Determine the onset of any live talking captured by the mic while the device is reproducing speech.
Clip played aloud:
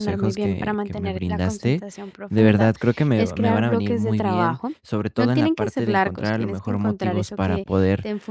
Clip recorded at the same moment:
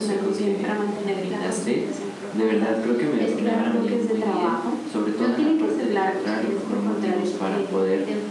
none

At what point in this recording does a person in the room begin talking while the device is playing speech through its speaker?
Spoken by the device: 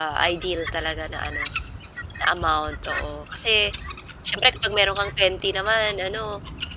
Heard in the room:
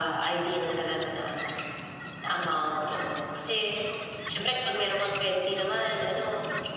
none

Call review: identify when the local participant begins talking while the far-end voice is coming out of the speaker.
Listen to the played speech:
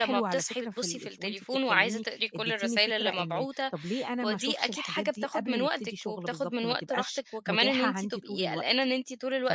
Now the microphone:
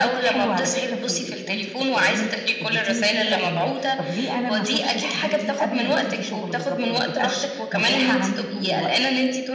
none

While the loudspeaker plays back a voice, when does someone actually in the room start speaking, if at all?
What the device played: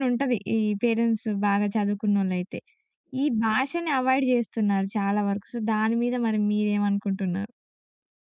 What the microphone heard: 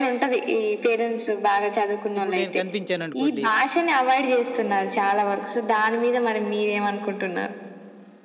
2.2 s

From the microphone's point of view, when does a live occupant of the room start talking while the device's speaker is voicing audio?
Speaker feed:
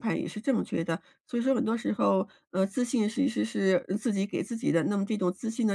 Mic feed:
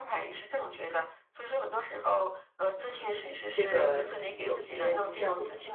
2.7 s

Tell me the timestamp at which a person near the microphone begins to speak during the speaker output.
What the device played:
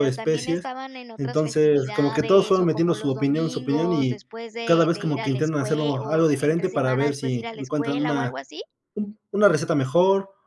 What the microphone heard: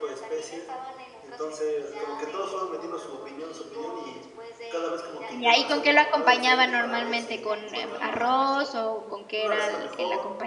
5.3 s

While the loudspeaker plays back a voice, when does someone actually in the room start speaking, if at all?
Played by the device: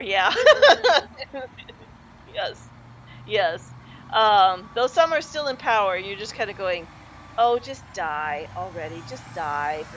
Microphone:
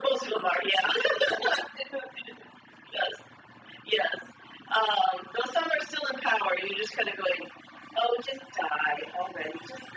none

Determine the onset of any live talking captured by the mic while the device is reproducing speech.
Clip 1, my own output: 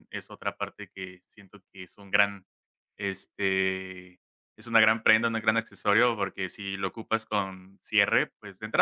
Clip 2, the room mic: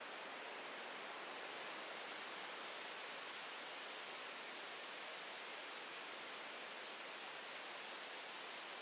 none

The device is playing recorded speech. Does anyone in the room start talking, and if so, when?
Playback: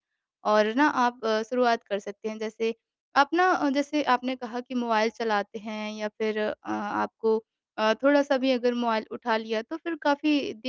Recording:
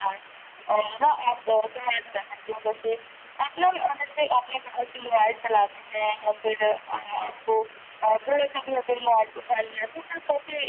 none

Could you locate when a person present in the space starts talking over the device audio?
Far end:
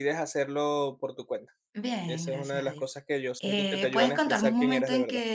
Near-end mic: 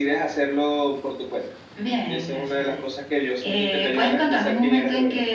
none

